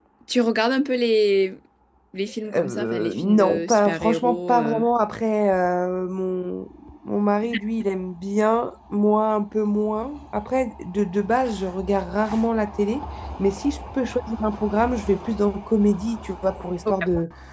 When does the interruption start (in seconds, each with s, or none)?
2.5 s